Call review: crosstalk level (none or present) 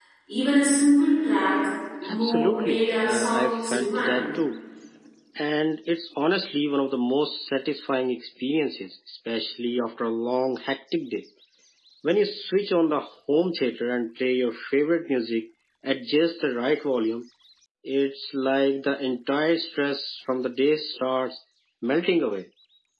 present